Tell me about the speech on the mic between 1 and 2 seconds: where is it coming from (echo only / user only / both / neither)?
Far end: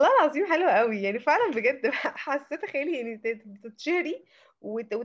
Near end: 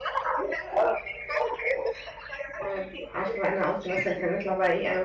echo only